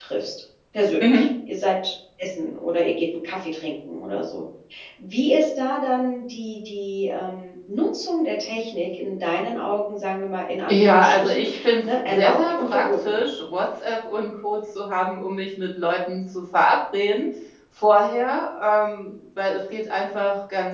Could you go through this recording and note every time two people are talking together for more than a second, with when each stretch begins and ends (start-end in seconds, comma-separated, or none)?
10.7-13.1